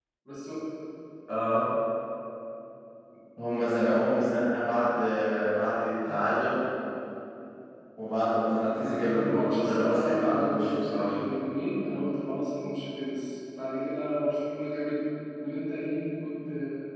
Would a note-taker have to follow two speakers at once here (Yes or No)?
Yes